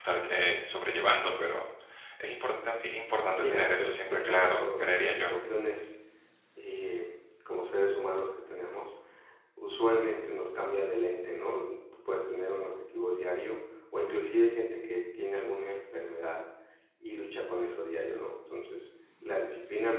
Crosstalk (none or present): present